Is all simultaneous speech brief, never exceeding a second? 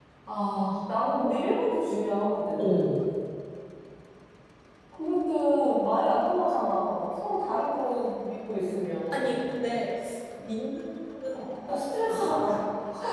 Yes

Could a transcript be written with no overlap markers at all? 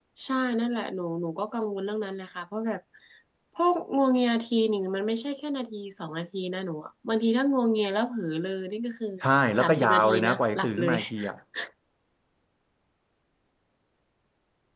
No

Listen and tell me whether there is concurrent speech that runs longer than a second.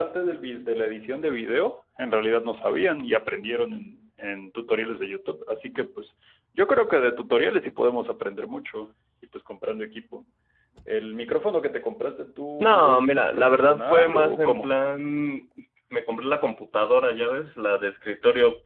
Yes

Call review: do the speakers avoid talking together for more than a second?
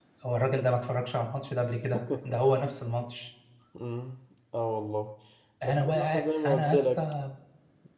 No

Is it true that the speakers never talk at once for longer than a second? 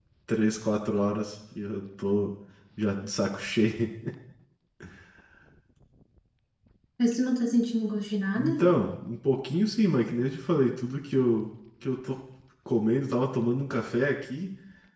Yes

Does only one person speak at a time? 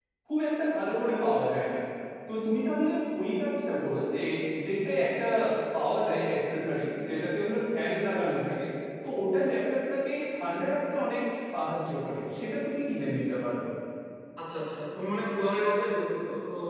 Yes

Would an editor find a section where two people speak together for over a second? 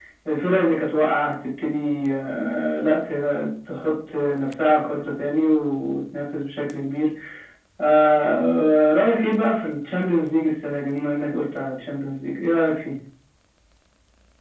No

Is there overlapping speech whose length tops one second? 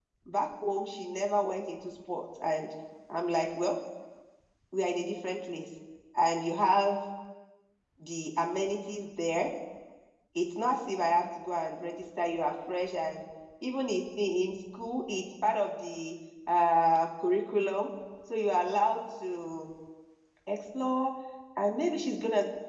No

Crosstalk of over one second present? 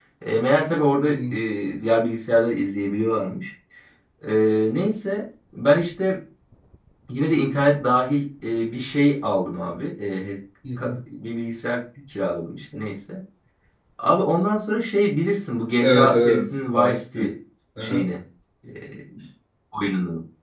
Yes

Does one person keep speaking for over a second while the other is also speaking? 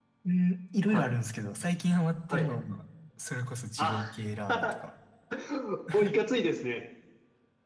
No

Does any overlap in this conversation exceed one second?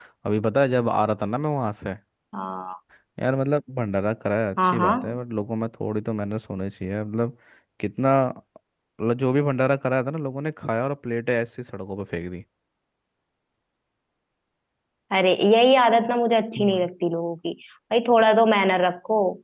No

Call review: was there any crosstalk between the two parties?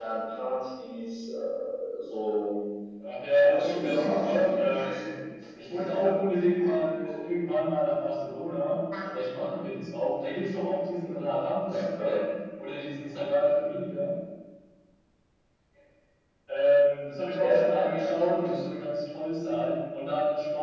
Yes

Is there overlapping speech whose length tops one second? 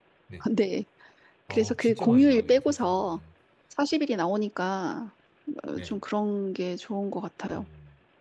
Yes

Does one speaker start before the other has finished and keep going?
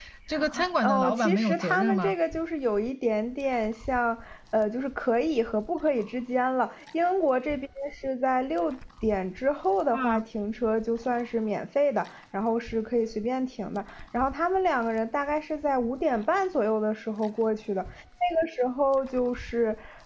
Yes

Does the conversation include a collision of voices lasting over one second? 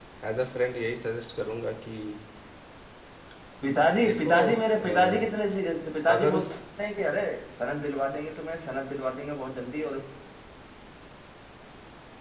Yes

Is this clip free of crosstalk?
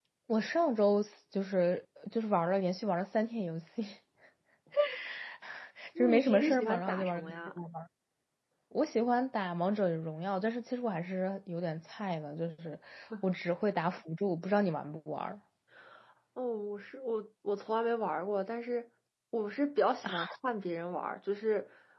No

